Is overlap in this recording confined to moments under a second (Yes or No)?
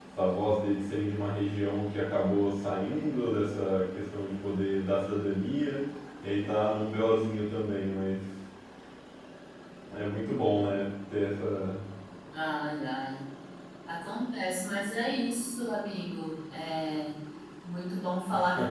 Yes